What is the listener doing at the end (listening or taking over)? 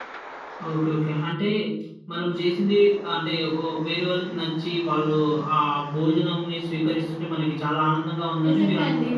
taking over